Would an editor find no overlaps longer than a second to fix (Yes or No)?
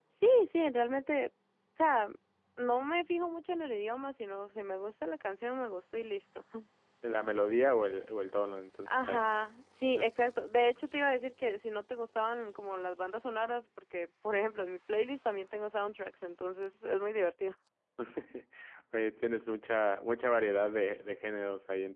Yes